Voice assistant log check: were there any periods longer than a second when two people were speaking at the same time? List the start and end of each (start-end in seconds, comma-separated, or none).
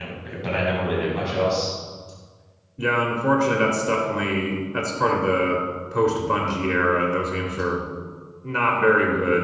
none